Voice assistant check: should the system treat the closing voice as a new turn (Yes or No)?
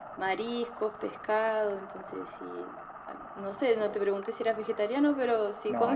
Yes